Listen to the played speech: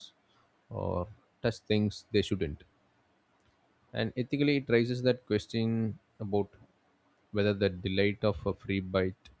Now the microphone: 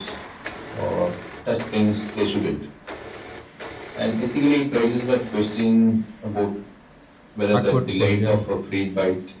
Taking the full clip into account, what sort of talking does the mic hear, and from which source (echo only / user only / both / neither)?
both